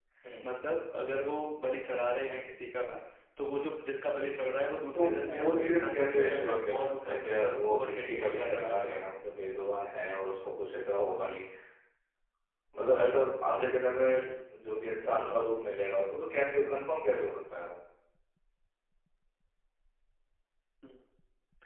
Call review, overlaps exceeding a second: present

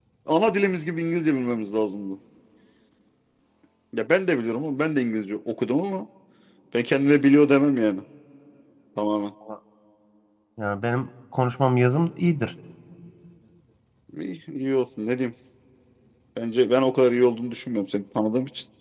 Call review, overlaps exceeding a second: none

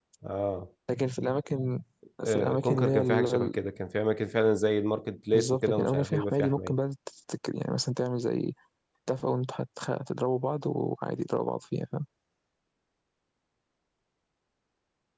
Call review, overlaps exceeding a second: present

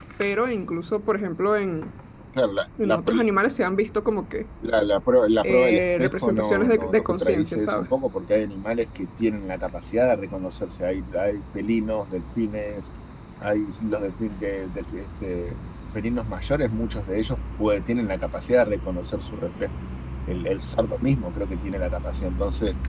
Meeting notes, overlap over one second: present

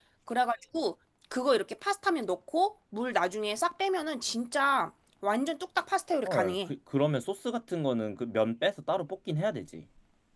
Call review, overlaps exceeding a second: none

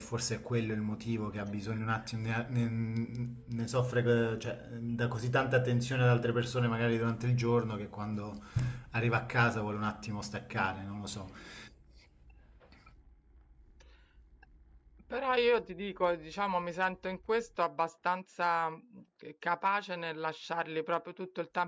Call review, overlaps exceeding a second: none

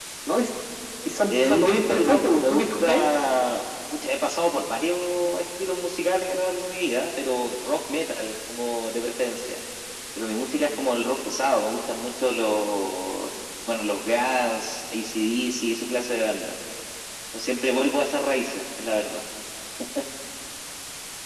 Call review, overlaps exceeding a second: present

